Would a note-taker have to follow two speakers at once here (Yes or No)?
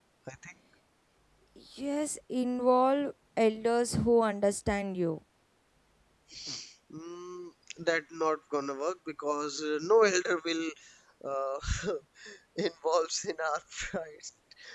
No